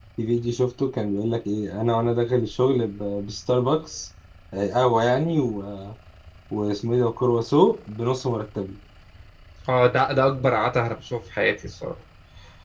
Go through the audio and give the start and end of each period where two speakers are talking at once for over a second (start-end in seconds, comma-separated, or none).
none